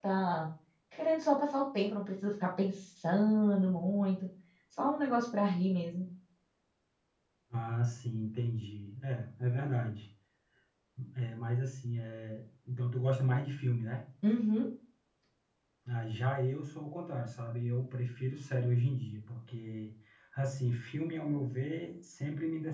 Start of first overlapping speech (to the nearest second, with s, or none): none